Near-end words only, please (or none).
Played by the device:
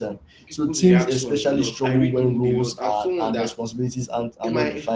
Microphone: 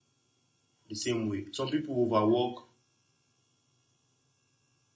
the same way. Some people overwork,